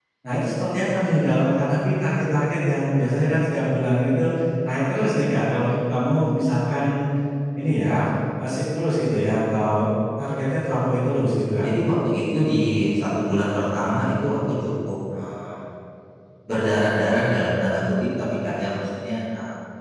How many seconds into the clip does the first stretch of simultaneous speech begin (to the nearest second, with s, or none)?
none